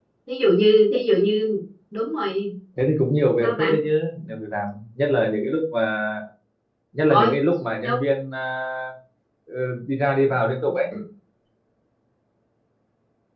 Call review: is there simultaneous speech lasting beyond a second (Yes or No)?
No